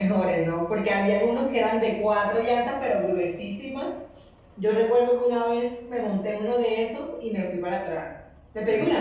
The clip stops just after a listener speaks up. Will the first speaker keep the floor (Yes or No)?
Yes